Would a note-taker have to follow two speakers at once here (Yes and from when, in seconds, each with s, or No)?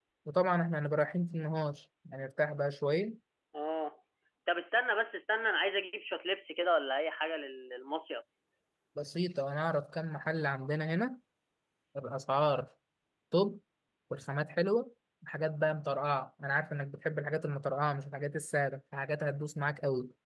No